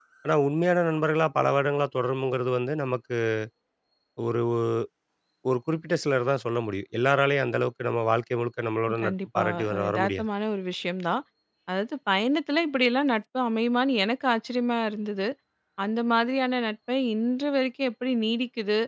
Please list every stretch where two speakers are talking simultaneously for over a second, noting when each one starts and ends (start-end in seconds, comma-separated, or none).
9.0-10.2